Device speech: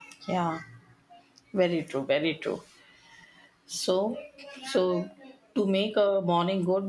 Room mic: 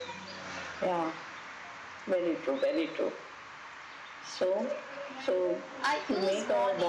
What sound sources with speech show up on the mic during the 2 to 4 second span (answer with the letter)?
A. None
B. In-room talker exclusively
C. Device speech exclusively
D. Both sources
C